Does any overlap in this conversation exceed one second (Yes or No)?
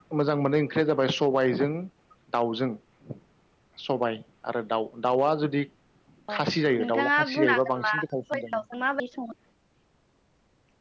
Yes